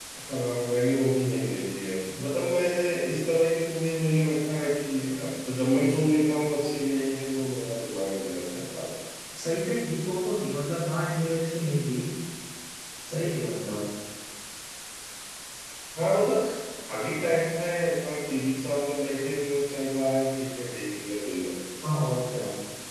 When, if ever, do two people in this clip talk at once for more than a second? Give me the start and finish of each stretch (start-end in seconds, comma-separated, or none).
none